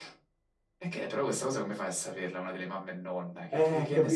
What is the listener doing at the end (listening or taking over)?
taking over